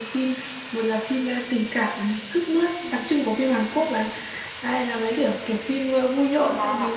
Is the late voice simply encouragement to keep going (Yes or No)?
No